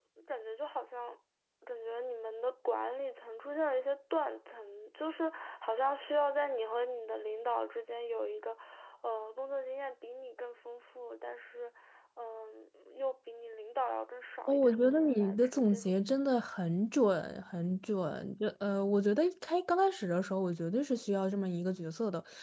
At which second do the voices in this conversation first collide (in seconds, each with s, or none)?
14.5 s